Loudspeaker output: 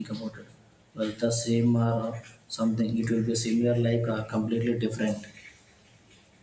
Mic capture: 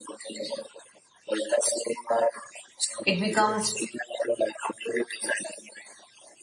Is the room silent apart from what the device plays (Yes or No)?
No